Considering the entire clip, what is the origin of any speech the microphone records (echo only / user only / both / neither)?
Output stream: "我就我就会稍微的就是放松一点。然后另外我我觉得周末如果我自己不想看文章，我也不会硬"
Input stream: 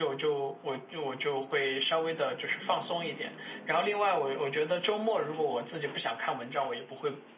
echo only